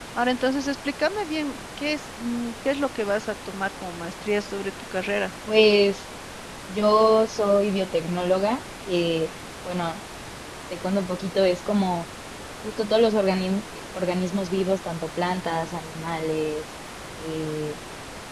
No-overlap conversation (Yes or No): Yes